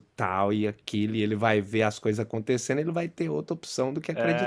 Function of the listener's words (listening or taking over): taking over